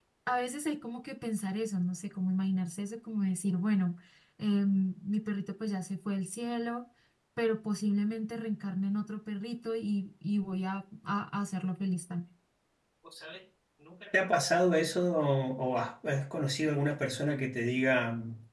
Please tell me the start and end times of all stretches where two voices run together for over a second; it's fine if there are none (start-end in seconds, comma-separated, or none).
none